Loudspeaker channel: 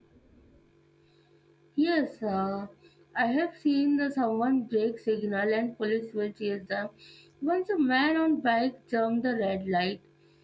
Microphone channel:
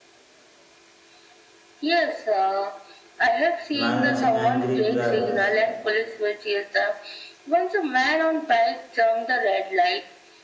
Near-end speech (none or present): present